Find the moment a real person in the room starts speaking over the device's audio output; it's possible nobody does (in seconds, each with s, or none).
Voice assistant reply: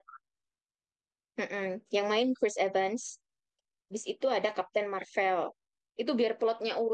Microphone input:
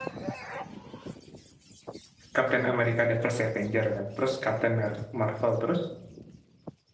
2.3 s